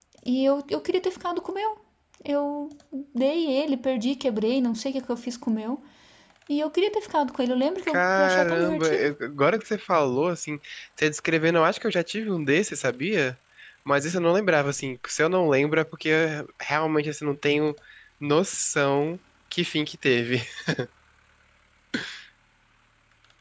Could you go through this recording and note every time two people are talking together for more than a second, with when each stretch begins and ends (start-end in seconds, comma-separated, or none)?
7.9-9.1